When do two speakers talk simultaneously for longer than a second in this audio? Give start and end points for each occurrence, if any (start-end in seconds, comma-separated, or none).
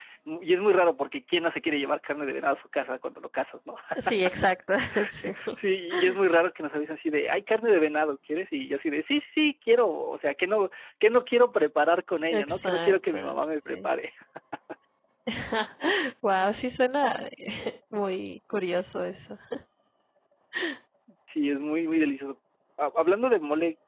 12.3-13.9